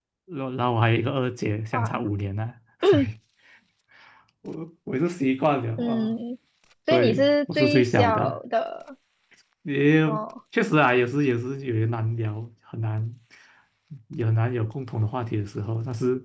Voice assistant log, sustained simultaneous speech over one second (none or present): present